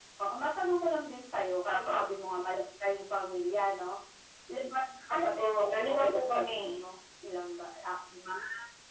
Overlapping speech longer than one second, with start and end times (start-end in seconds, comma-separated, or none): 5.1-6.6